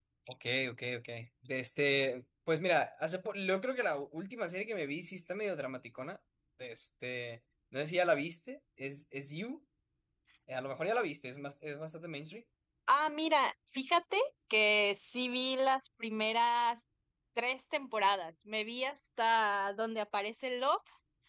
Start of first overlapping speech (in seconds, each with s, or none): none